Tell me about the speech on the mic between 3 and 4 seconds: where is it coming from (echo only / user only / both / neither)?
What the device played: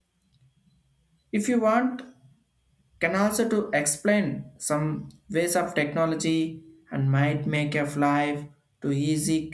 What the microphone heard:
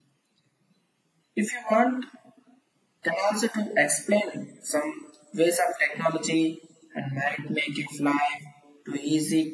echo only